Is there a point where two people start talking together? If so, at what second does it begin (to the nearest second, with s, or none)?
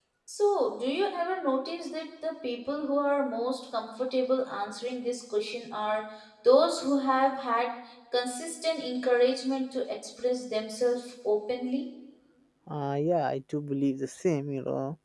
none